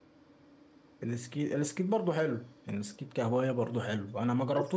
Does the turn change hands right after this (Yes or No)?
No